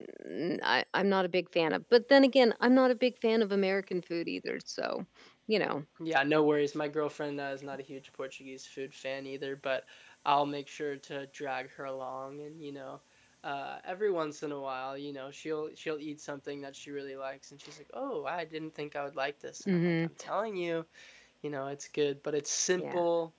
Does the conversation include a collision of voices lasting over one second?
No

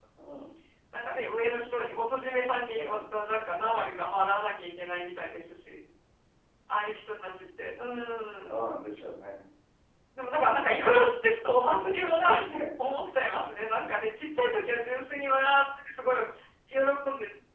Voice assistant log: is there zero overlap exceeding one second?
Yes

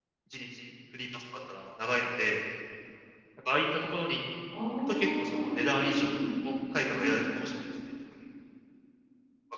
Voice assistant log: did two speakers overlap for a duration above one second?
Yes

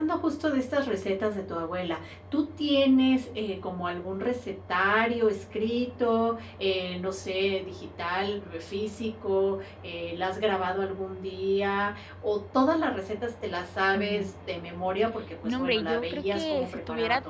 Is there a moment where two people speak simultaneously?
Yes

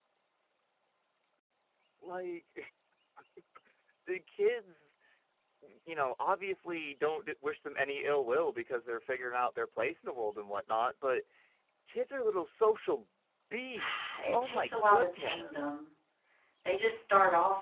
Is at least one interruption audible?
Yes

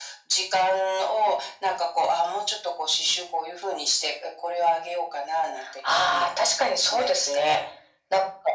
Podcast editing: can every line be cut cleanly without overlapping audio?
No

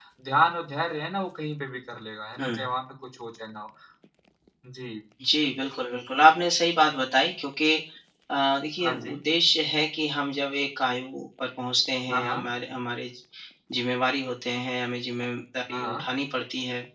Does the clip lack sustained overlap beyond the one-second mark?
Yes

